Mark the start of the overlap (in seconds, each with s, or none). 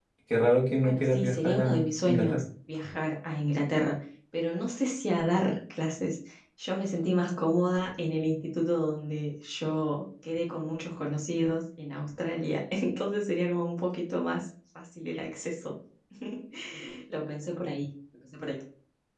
0.8 s